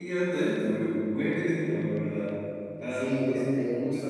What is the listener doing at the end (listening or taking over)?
taking over